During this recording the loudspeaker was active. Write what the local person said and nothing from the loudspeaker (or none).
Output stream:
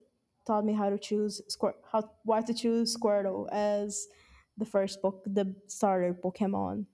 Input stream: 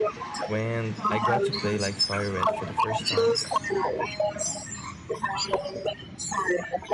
When I got to play like Fire Red for the first time,